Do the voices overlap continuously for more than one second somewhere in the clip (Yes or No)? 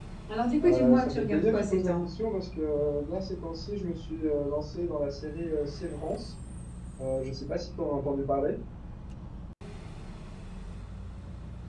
Yes